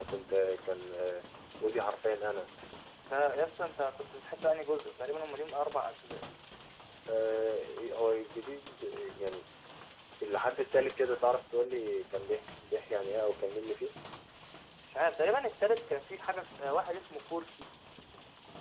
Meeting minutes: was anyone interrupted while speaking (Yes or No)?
No